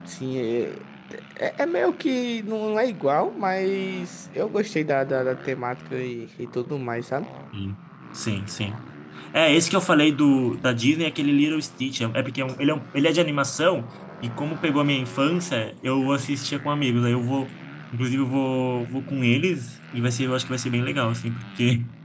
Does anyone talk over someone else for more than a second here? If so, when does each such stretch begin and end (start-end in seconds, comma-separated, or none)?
none